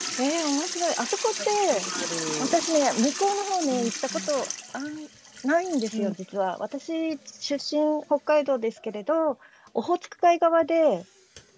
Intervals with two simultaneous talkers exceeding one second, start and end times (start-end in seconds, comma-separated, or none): none